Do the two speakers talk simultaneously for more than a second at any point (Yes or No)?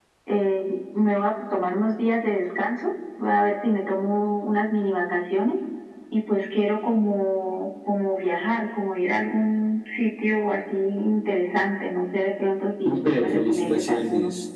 Yes